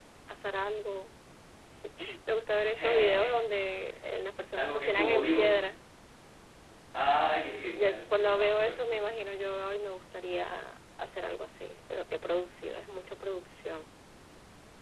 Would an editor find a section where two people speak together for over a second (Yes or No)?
Yes